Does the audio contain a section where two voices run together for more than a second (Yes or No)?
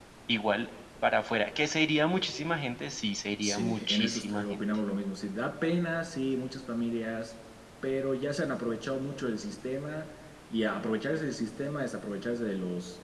Yes